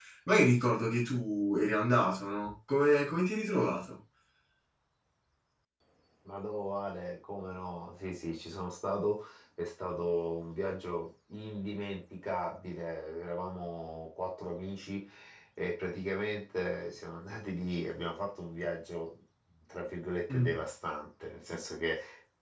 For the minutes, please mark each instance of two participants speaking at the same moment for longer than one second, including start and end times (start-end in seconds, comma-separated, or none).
none